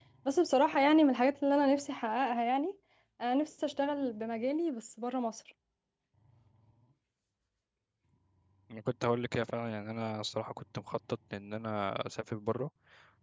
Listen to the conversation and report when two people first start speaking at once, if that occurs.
none

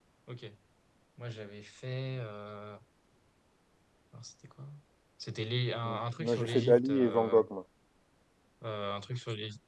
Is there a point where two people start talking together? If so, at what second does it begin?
6 s

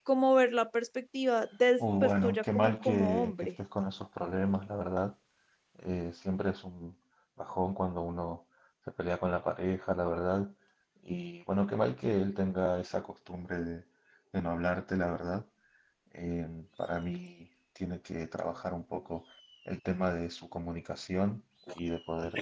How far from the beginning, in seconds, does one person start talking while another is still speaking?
2 s

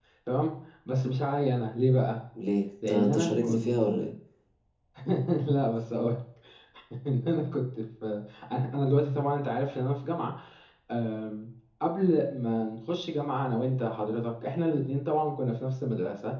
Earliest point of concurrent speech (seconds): 3 s

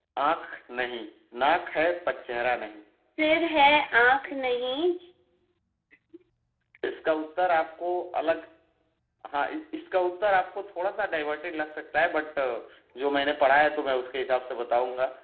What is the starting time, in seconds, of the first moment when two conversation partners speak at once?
none

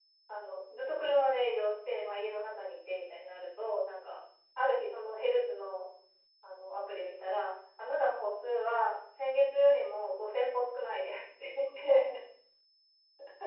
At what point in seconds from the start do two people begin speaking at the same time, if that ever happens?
none

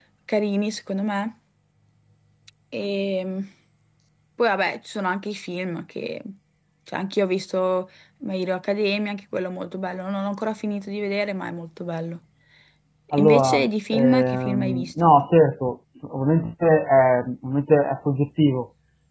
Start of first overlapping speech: 13 s

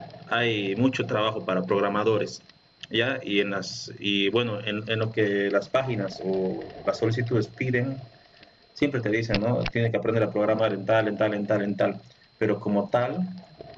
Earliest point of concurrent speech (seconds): none

